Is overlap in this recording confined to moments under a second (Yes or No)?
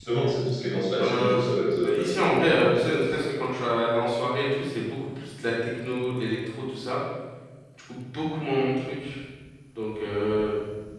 No